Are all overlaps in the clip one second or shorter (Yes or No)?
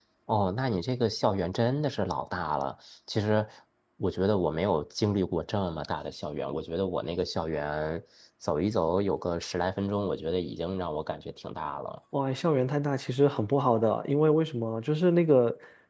Yes